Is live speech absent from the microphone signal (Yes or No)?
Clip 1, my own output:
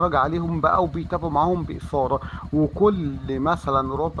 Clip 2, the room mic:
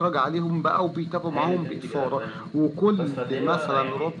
No